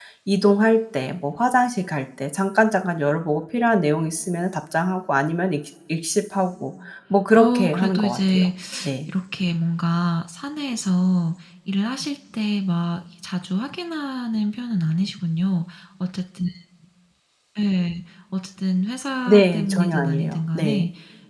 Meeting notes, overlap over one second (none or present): present